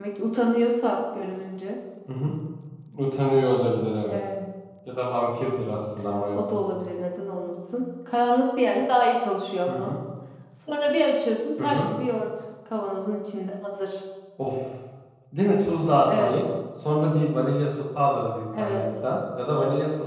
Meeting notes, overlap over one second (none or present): none